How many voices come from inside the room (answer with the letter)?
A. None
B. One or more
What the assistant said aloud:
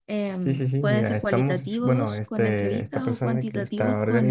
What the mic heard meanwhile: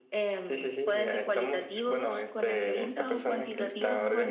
B